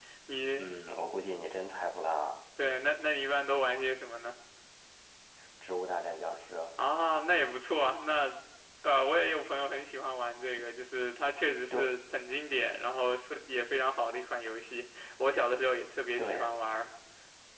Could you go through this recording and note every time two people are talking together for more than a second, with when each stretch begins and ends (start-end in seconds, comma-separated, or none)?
none